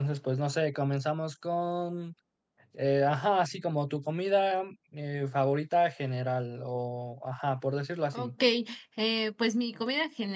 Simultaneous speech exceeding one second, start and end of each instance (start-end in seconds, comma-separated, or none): none